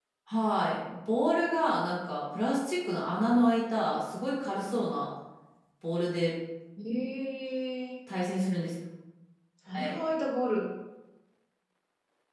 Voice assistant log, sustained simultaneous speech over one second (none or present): none